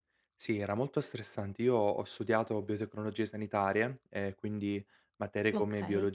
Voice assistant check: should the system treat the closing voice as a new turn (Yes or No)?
No